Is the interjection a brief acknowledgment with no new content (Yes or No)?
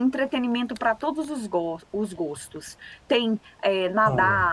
Yes